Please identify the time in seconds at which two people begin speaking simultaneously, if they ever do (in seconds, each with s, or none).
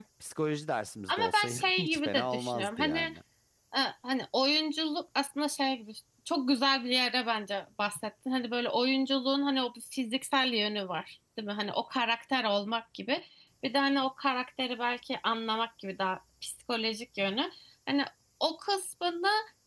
1.1 s